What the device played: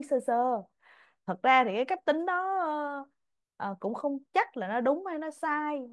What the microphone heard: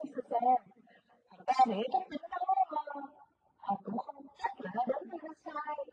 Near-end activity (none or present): none